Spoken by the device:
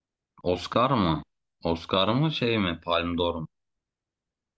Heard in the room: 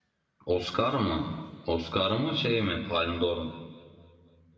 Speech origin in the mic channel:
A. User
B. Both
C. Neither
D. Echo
D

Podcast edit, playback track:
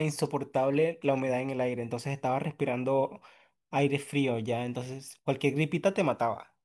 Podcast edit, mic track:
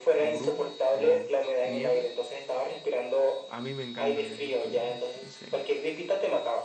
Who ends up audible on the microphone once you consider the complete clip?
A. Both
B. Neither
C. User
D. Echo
A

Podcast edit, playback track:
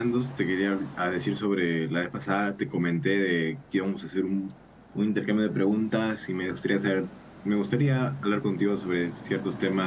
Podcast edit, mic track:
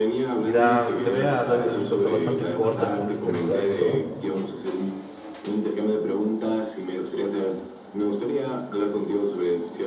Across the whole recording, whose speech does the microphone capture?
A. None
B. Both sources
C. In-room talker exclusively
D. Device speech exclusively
B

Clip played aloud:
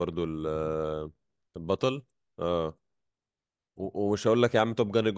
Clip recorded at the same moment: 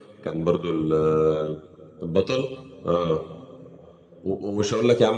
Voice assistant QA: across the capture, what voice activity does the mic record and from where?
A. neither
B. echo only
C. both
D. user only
B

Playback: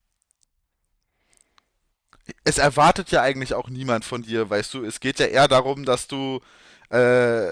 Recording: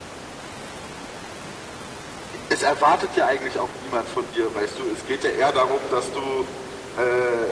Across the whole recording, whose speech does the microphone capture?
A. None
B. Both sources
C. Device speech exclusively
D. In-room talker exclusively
C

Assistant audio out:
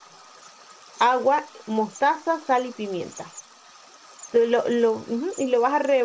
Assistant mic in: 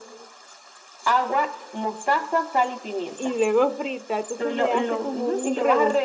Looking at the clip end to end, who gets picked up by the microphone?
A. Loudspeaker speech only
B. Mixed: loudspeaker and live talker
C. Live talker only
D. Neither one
B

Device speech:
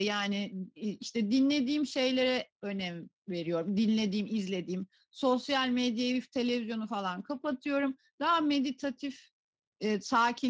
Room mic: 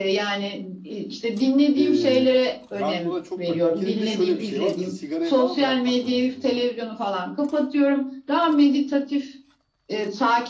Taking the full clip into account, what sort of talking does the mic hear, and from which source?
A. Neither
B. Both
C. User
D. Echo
B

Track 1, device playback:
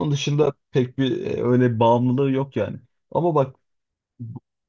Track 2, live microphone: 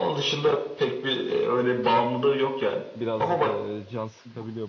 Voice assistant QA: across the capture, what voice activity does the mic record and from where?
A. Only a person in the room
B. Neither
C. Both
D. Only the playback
C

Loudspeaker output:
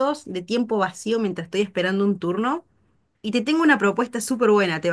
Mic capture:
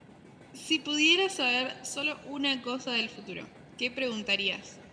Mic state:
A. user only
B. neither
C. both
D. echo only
A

